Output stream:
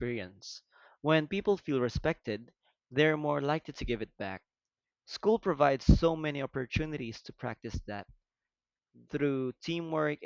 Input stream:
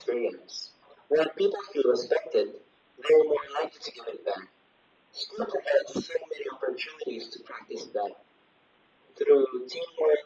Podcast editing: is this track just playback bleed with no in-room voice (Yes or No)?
Yes